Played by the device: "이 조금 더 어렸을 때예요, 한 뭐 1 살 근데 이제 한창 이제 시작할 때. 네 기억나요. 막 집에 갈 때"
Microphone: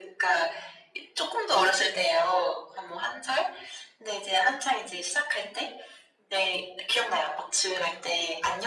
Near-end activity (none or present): none